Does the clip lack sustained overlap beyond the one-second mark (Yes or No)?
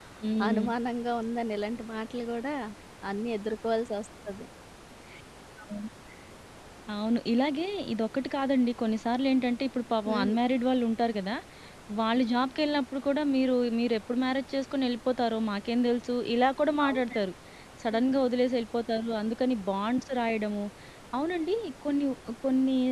Yes